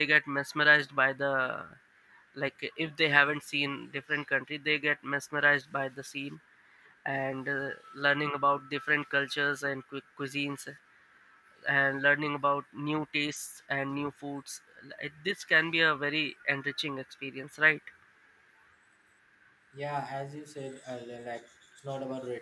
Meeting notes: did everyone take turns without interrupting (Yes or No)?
Yes